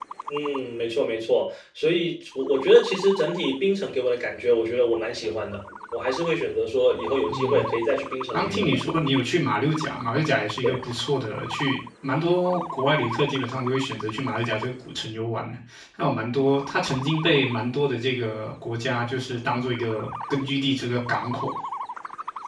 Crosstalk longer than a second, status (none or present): none